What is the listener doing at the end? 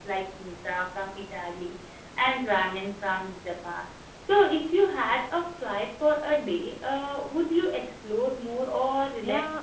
taking over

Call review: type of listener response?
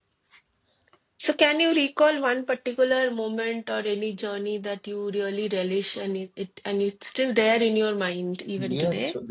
taking over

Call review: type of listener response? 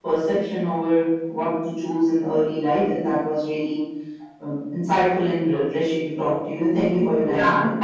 taking over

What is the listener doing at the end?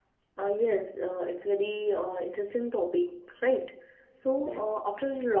listening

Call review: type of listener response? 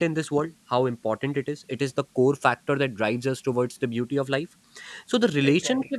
listening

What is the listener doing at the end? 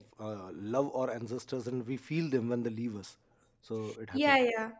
taking over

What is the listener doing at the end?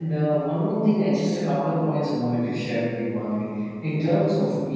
listening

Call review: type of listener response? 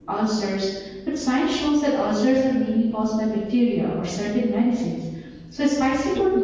listening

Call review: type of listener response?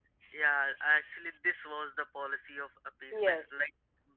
listening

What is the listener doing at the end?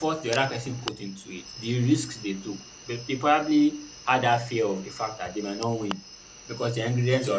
listening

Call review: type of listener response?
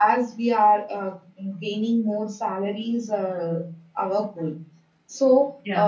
listening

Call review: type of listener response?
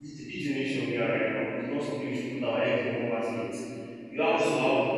listening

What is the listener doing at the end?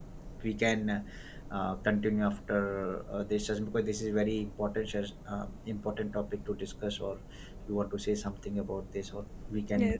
taking over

